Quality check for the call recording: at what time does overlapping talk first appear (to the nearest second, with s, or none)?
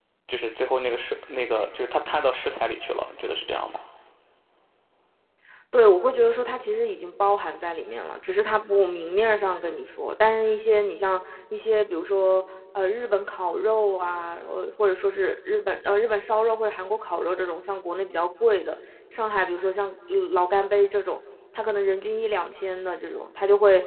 none